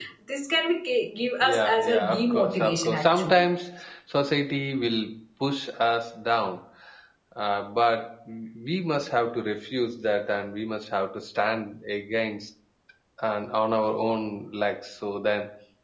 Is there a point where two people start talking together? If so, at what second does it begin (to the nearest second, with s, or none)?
1 s